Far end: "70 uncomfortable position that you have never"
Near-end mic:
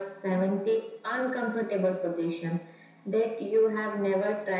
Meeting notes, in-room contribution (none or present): none